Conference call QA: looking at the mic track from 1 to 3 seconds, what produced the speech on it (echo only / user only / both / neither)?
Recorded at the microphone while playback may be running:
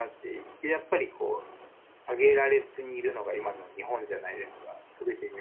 echo only